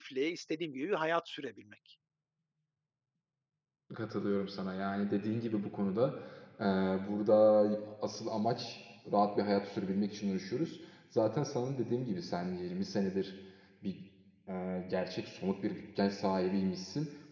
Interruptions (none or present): none